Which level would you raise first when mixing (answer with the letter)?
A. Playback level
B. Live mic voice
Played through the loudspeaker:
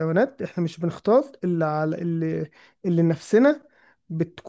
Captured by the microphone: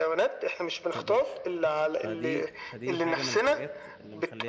B